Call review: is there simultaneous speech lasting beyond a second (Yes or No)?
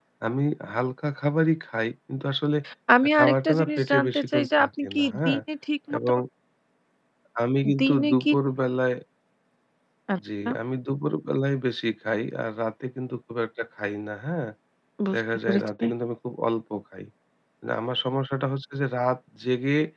Yes